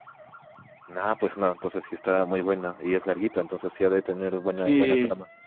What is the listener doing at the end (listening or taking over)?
taking over